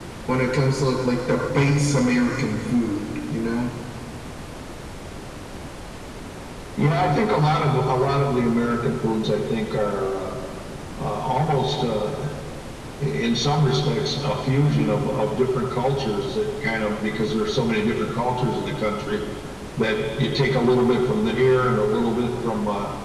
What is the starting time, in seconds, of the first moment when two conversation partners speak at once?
none

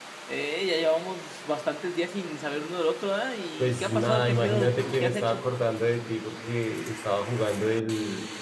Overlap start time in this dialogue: 4 s

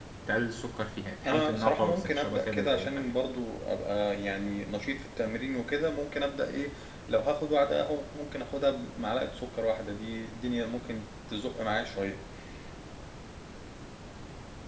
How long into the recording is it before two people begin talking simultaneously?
1 s

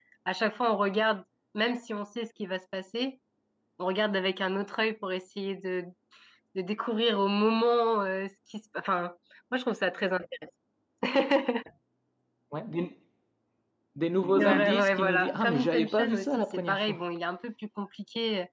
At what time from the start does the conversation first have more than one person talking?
14 s

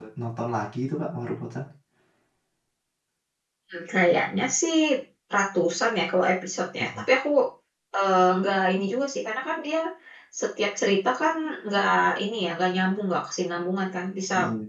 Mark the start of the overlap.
none

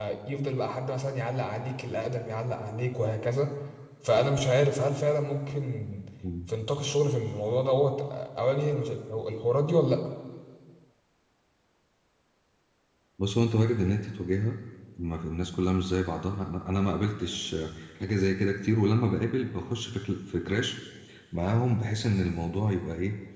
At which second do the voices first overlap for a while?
none

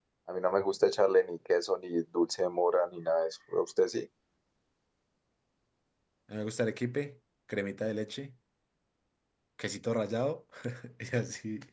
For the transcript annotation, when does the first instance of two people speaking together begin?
none

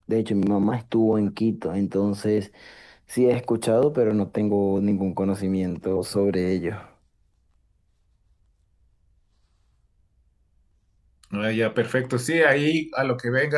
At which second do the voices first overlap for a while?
none

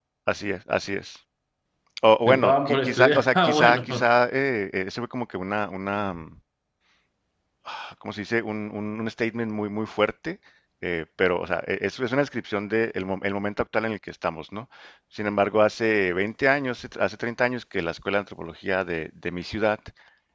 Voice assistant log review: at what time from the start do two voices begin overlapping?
2 s

